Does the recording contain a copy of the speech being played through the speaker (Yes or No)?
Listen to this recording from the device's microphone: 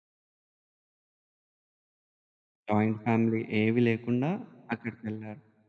No